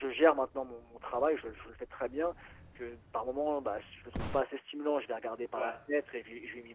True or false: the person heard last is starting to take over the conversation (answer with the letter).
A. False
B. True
A